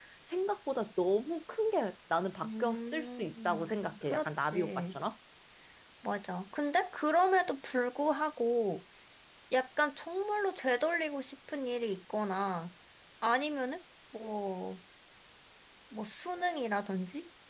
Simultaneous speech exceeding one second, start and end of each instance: 2.4-5.0

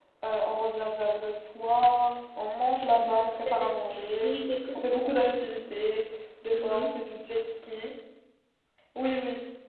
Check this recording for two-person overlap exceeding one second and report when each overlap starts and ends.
2.9-4.4

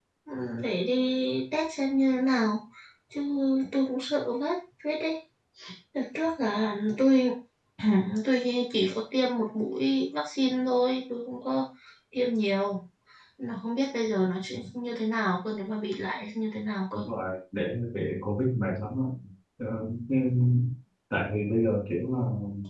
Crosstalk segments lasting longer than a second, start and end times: none

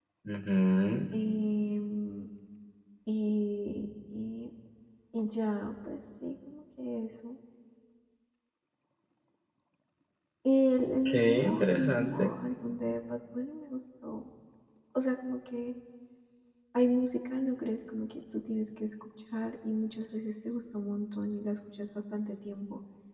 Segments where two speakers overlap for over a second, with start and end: 11.1-12.3

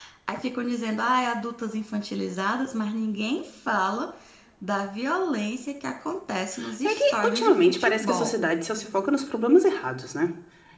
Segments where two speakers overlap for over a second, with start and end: 6.8-8.3

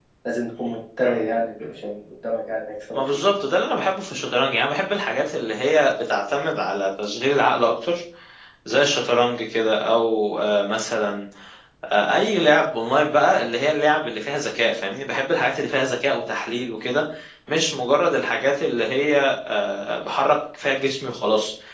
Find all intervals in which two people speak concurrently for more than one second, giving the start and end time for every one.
none

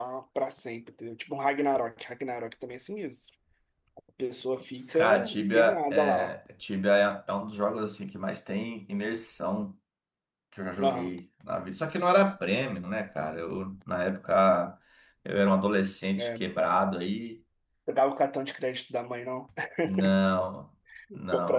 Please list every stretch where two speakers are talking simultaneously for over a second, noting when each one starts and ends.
4.9-6.3

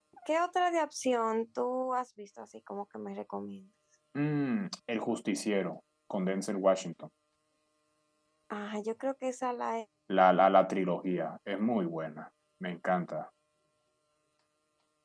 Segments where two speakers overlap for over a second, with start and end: none

